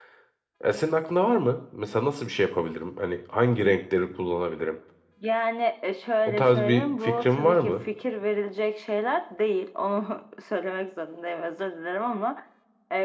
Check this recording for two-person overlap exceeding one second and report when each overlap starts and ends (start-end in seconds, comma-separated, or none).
6.3-7.8